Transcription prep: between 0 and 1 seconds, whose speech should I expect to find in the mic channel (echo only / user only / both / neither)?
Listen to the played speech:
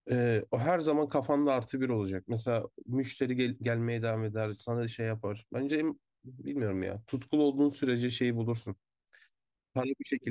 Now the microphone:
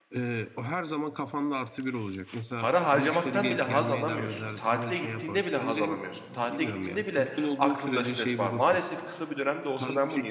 echo only